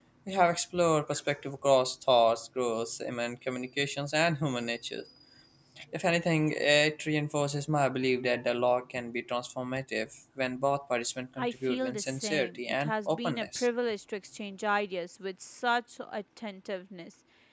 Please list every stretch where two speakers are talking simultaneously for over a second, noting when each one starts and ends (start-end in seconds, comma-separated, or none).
11.4-13.7